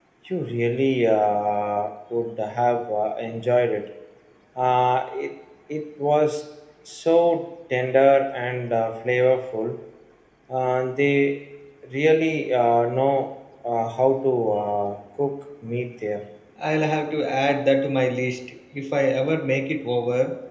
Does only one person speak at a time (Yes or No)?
Yes